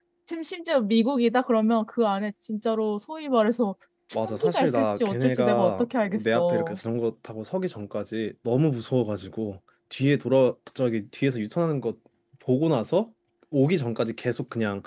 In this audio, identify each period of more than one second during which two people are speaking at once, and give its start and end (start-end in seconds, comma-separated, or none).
4.2-6.8